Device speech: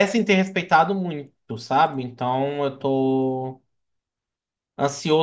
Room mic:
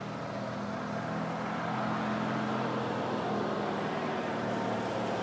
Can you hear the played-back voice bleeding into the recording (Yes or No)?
No